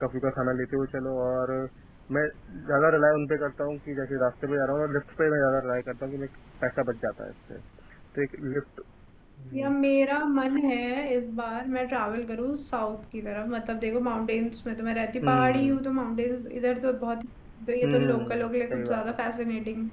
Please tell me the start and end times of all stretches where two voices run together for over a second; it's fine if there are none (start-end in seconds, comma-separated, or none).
17.8-19.2